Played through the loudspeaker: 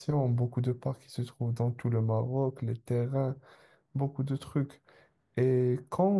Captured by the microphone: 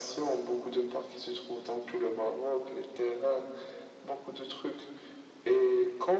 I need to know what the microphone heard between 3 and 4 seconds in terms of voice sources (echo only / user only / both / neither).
echo only